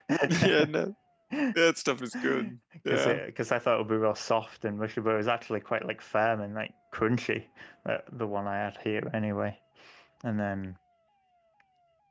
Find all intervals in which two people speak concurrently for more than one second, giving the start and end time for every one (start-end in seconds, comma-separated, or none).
none